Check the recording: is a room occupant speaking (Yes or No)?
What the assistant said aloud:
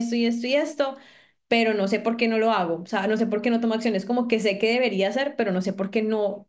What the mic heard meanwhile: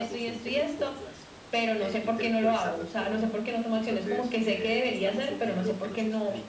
Yes